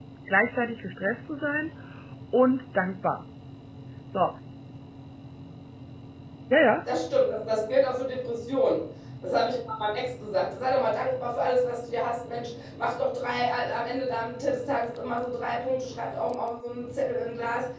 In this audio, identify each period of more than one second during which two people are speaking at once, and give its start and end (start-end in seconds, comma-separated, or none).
none